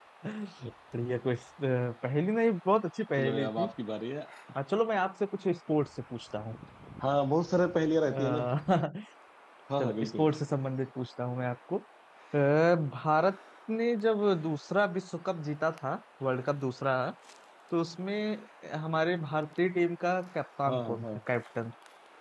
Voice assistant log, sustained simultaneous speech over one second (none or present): none